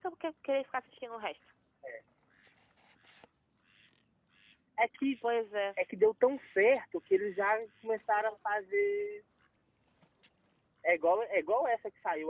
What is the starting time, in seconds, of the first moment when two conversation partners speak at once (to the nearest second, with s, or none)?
none